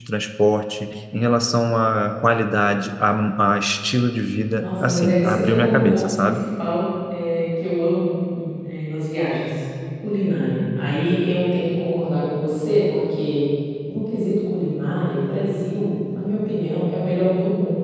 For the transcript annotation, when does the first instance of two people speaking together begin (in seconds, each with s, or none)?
4.6 s